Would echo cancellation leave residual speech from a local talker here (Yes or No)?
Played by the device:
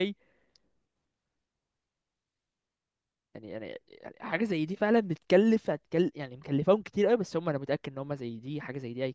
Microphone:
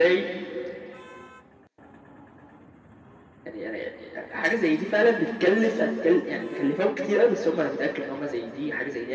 No